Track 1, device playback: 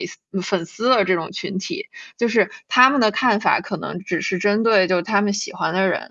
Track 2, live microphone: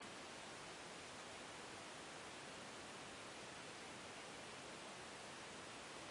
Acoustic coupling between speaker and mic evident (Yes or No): No